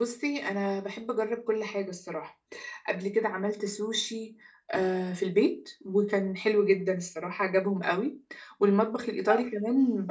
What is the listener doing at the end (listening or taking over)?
listening